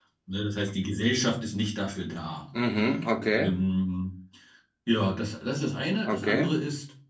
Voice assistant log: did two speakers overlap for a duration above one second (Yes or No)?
No